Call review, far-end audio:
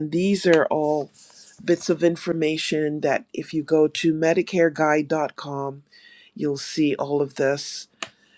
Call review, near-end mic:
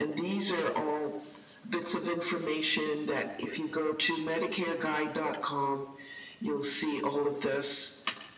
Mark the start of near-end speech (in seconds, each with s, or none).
none